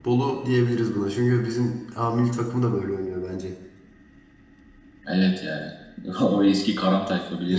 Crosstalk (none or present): none